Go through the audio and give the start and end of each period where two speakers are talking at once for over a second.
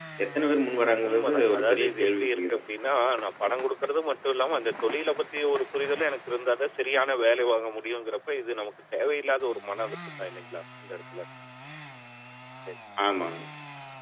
1.1-2.6

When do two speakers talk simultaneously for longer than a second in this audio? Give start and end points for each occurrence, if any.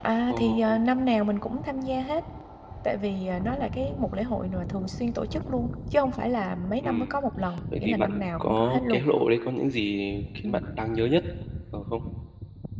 7.8-9.0

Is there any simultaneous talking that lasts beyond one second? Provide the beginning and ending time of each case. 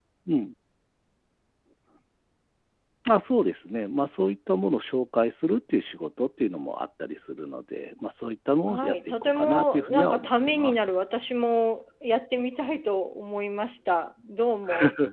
8.7-10.8

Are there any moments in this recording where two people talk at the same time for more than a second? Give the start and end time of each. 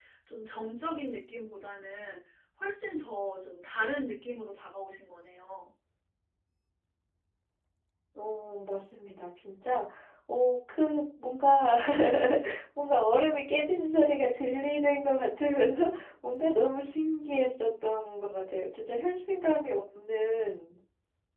none

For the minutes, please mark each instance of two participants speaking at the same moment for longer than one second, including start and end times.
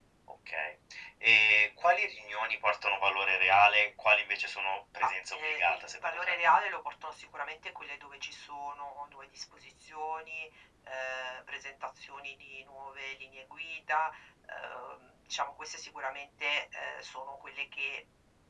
5.0-6.4

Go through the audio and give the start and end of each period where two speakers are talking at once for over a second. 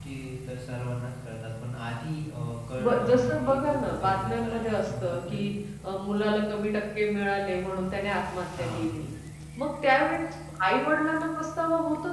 2.8-5.5

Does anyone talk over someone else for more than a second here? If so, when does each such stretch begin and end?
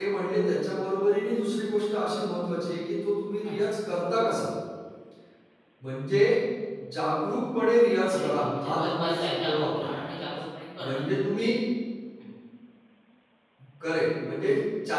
8.1-10.0

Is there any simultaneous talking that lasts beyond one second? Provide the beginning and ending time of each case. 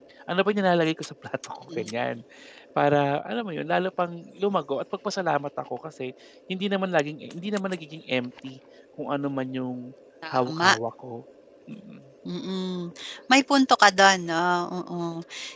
none

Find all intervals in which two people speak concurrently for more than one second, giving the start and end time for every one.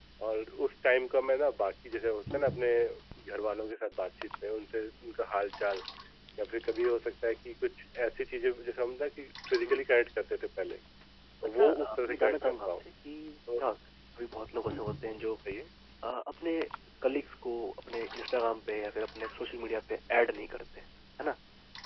11.4-12.8

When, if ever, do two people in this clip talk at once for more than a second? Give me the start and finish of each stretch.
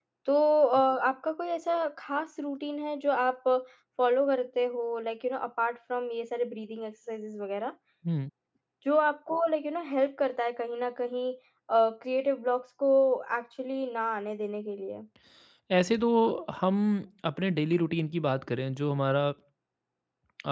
none

